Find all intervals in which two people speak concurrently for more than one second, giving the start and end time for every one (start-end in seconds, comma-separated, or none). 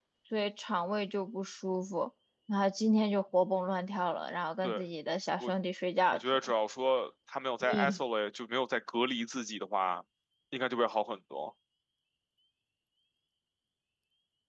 none